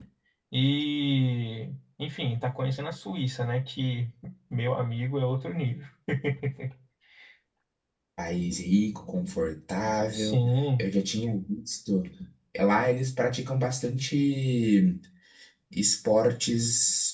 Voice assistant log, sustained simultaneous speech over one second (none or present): none